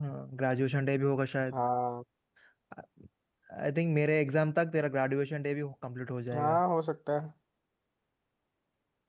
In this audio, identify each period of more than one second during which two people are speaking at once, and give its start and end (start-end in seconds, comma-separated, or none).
none